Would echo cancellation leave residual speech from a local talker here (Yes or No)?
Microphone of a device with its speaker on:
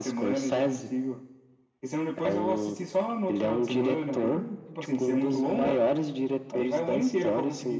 No